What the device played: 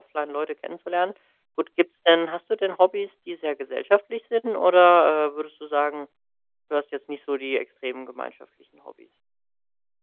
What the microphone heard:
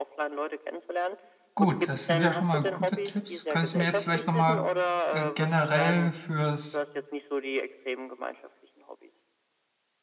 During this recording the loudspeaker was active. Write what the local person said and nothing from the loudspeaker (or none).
gut, das sind ja schon mal gute Tipps. Könntest du mir jetzt vielleicht noch mal, äh, generell fürs